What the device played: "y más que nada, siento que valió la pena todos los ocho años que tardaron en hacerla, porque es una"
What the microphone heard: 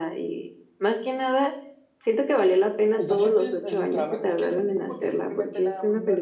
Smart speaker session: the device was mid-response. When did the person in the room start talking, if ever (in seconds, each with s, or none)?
2.9 s